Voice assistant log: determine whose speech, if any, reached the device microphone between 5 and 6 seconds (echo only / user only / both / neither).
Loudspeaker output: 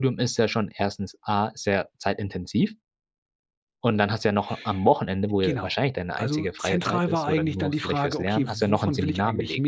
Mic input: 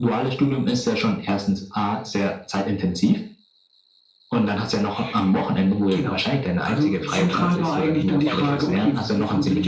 echo only